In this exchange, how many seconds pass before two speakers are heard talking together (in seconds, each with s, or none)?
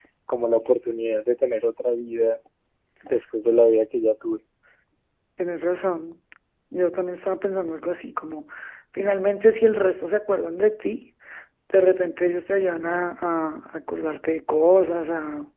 none